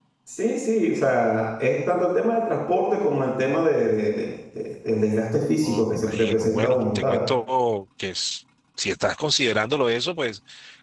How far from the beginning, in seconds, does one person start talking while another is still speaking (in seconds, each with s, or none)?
5.6 s